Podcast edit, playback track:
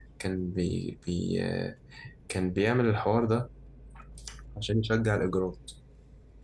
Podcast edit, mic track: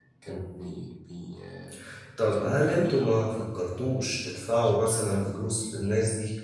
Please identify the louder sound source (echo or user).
user